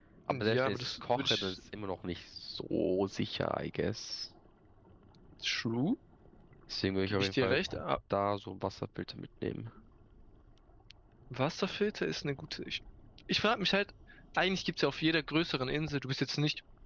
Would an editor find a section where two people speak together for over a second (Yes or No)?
Yes